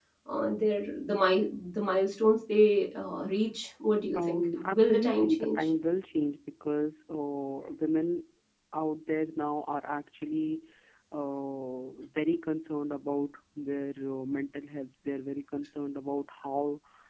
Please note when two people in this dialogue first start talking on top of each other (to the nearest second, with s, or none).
4 s